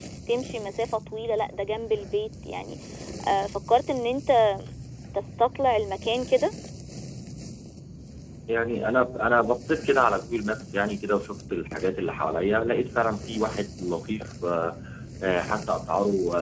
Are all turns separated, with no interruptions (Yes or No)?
Yes